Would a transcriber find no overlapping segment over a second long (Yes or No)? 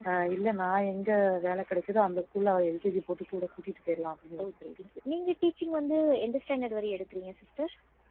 Yes